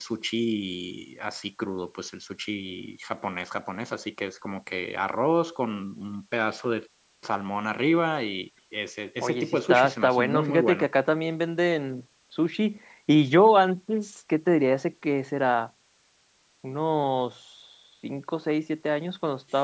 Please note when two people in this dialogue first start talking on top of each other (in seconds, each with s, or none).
9.2 s